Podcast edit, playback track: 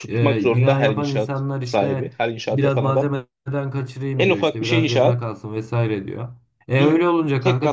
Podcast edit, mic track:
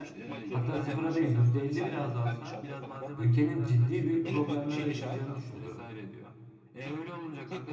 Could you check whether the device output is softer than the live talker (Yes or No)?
Yes